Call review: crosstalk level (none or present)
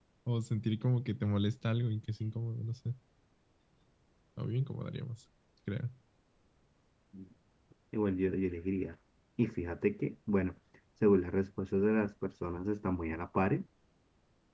none